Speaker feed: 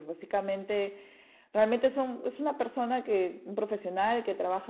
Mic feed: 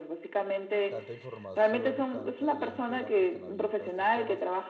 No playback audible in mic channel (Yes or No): No